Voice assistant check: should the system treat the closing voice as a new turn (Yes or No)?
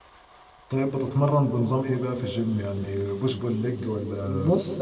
Yes